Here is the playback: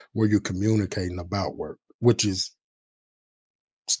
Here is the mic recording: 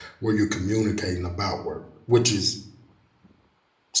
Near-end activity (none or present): none